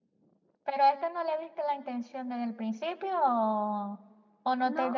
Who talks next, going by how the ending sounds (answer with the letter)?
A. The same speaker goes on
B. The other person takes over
A